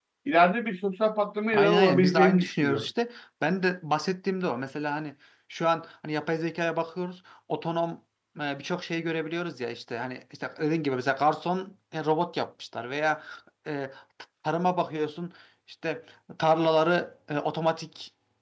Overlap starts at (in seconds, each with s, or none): 1.5 s